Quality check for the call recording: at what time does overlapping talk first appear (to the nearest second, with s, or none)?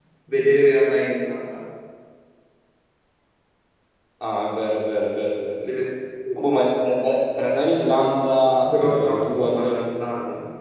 9 s